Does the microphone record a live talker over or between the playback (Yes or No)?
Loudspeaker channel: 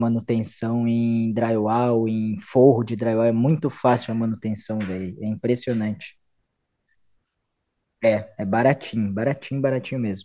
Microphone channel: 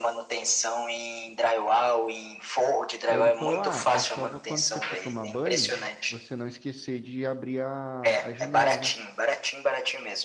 Yes